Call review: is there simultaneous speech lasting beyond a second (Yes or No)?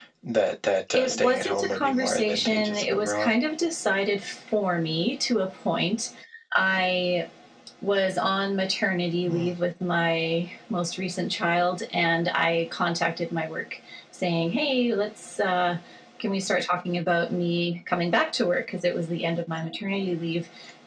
Yes